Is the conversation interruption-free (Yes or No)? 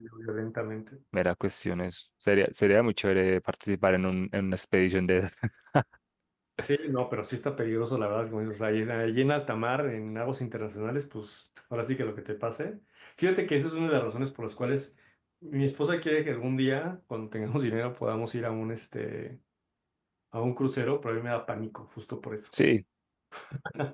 Yes